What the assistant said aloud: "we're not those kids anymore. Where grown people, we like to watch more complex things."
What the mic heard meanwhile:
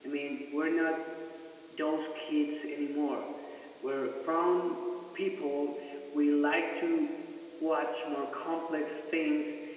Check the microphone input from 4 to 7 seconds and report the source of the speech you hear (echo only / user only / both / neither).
echo only